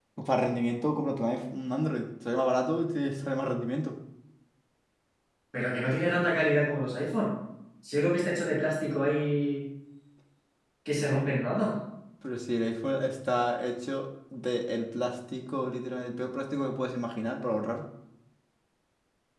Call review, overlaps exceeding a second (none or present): none